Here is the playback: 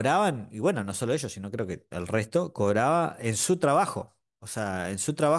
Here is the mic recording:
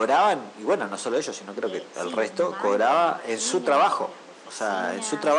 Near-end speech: present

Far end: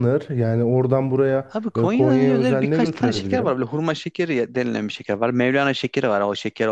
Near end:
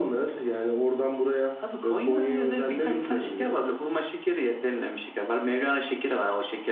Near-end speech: none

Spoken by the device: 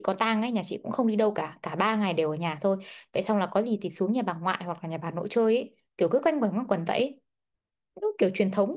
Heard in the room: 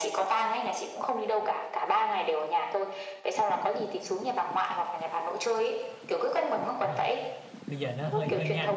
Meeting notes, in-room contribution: present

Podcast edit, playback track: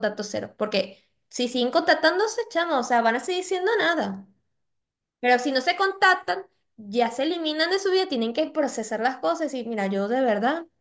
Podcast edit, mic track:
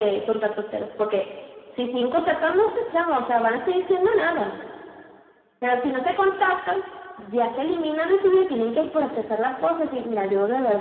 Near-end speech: none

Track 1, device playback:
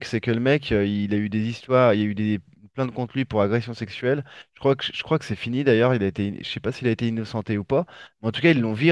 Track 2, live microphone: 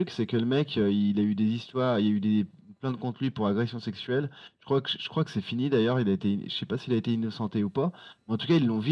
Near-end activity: none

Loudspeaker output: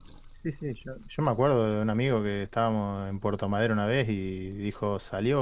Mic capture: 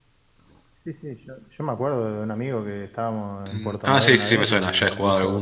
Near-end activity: present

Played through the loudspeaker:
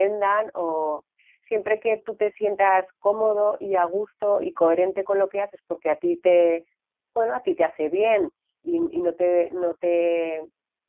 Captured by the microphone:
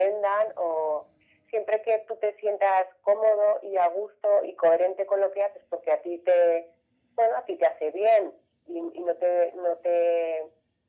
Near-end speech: none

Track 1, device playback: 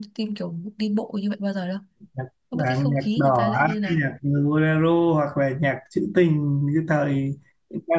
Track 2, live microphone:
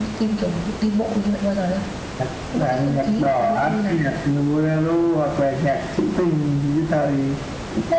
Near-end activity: none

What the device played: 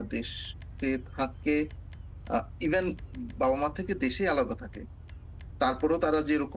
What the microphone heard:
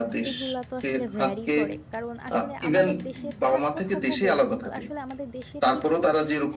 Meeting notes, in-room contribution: present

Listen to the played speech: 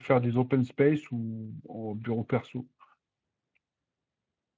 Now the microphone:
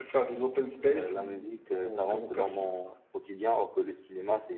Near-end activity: present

